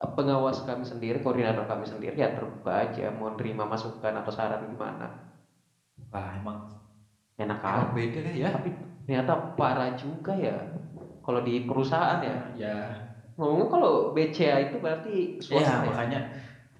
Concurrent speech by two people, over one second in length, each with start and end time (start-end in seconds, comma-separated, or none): none